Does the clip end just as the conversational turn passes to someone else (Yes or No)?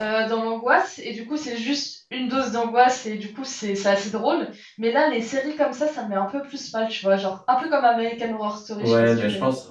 Yes